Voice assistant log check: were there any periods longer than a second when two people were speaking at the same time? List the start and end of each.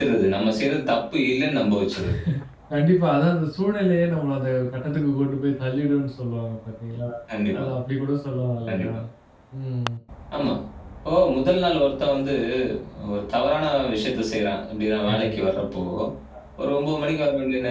none

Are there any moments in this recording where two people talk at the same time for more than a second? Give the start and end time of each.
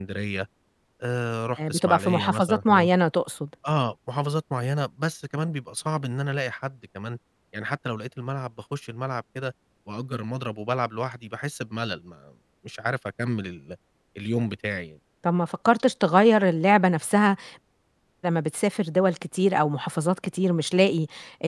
1.6-2.9

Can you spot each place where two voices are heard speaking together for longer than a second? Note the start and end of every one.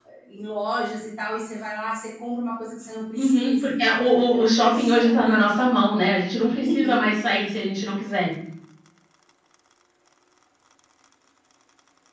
3.1-5.4

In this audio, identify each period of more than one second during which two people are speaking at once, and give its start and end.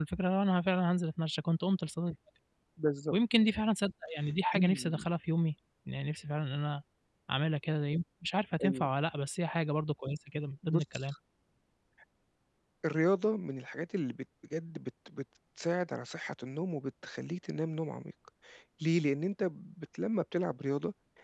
none

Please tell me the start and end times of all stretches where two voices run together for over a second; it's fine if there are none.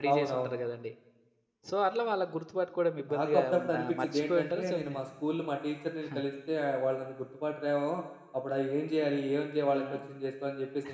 3.1-5.0

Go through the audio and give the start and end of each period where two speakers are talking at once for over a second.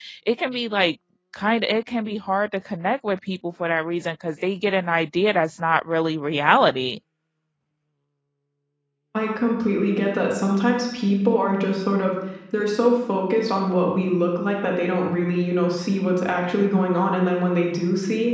none

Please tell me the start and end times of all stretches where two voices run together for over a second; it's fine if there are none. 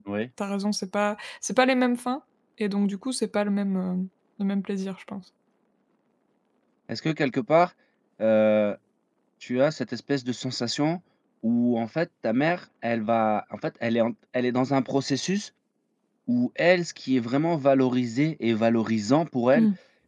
none

